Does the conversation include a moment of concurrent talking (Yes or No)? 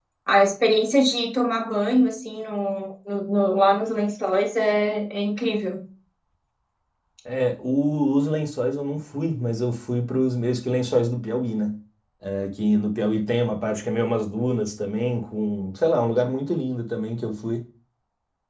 No